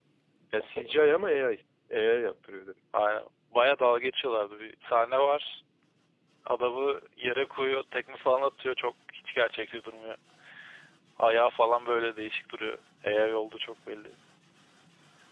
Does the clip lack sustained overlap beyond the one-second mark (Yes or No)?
Yes